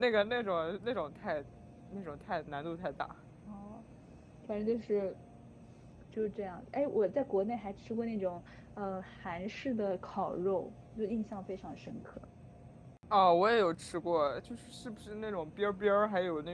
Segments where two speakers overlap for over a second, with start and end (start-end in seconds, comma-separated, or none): none